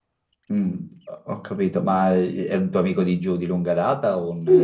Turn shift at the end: Yes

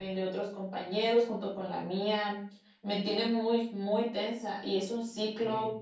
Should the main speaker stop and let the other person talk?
No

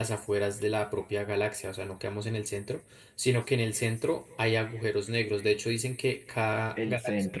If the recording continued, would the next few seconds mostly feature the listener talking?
Yes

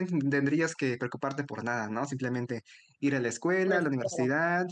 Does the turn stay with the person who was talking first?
Yes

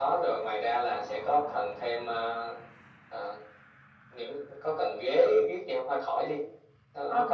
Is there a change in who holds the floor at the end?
Yes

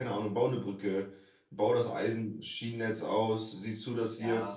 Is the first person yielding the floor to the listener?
No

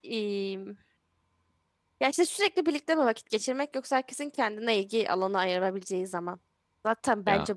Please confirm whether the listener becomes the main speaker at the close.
No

